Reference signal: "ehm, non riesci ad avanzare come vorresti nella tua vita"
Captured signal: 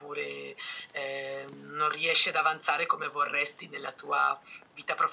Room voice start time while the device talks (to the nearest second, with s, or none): none